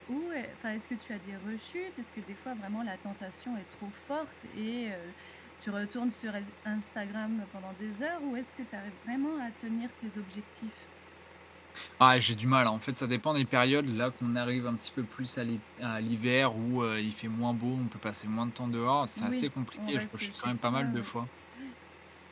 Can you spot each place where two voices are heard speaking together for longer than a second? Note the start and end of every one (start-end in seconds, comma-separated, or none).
19.2-21.1